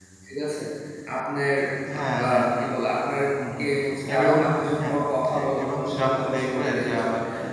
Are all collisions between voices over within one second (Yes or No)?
No